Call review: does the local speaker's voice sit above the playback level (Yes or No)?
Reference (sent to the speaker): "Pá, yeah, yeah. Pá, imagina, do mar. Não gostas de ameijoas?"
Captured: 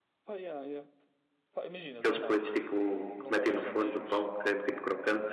Yes